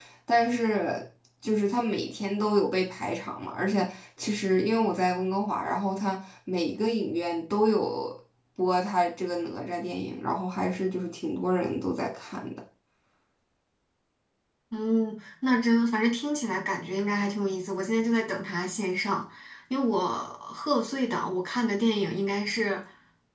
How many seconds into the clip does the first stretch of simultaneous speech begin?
none

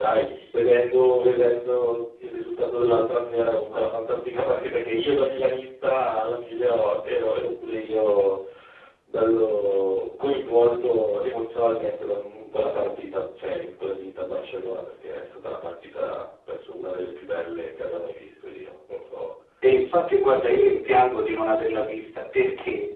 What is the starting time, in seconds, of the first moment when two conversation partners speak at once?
none

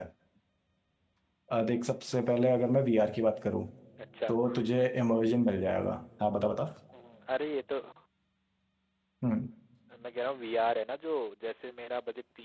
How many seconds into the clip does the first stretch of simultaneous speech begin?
none

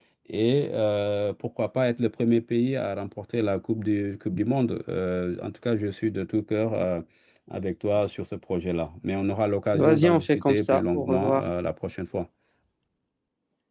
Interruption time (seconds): 9.7 s

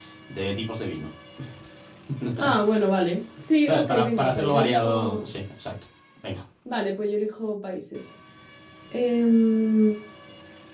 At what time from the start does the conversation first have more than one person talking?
3.6 s

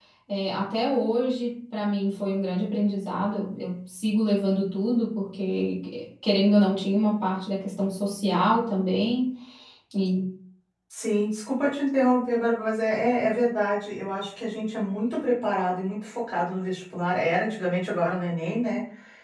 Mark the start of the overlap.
none

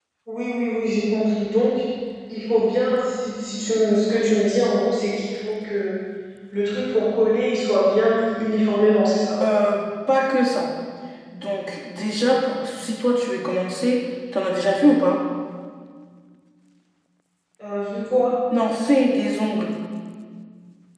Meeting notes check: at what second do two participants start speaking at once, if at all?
none

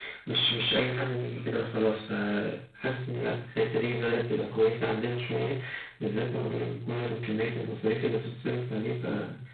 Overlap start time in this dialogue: none

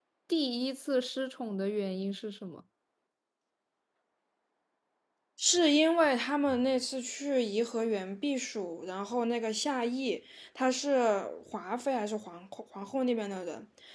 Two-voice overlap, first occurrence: none

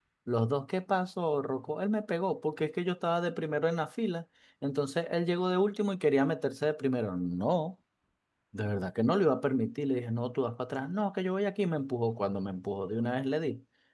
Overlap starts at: none

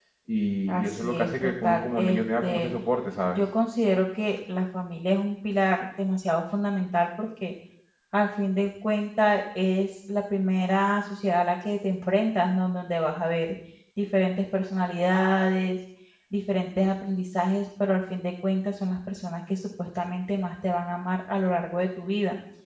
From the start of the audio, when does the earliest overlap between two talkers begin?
0.7 s

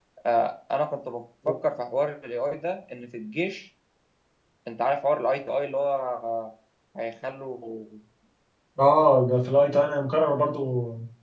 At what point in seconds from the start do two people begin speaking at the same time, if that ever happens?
none

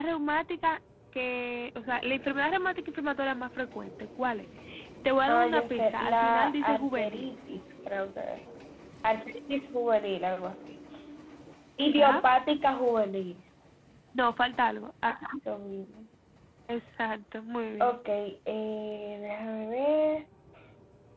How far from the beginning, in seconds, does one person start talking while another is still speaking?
5.3 s

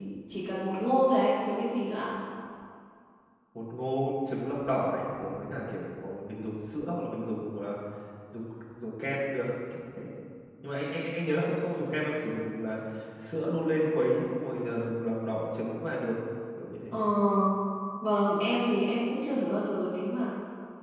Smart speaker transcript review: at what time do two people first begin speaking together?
none

